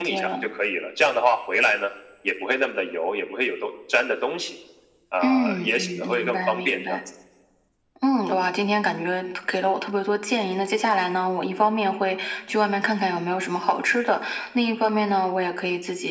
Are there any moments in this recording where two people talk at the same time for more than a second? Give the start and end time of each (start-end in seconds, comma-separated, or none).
5.2-7.0